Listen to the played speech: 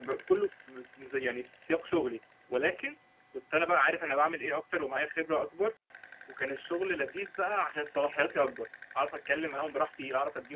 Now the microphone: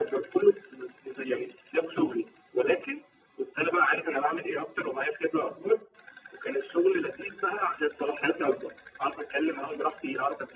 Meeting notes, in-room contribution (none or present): none